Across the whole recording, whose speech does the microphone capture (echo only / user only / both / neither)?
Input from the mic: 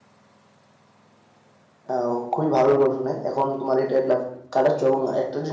user only